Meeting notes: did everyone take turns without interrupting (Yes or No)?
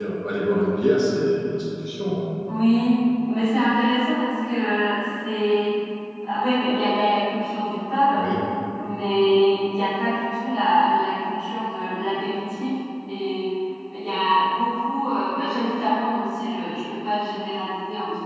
Yes